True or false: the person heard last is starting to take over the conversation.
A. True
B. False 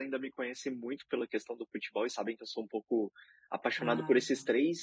B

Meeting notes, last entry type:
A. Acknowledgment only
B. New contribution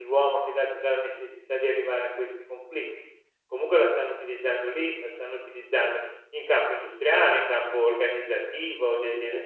A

